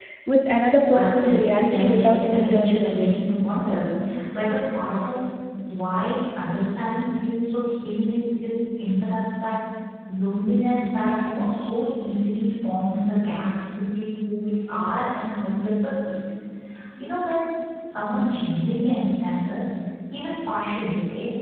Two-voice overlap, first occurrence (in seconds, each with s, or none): 0.9 s